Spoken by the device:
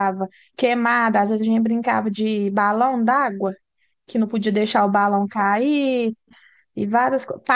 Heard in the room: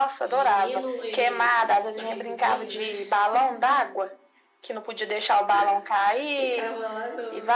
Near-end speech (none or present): present